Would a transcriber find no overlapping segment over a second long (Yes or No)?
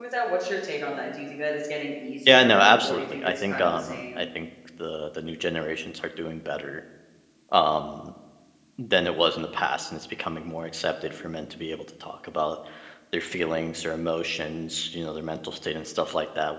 No